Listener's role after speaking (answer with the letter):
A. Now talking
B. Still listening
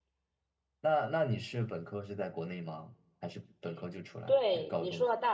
A